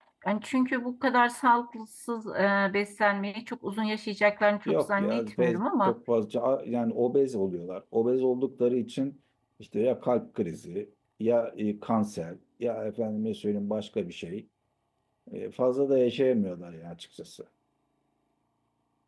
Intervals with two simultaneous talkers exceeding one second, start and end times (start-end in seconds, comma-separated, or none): 4.7-5.9